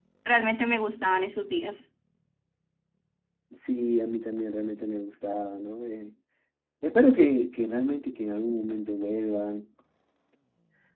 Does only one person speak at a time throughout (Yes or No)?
Yes